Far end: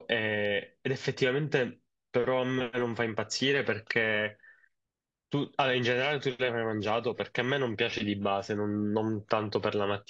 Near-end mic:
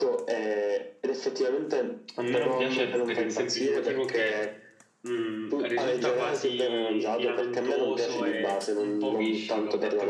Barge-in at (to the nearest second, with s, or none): 2 s